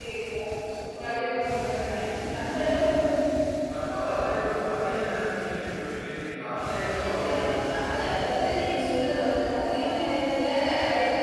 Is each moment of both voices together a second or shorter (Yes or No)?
No